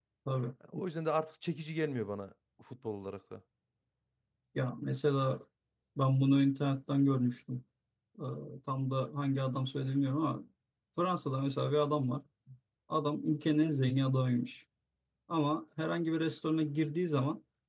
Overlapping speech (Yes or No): No